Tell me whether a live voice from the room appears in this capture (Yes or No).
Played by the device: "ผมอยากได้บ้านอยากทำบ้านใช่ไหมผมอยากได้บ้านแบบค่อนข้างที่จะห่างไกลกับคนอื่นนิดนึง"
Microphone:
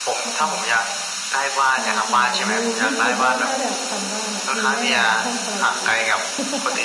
Yes